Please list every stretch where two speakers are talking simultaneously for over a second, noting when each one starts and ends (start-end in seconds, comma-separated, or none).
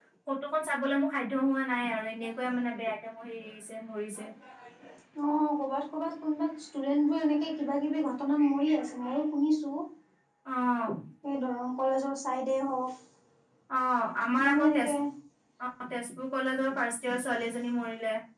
none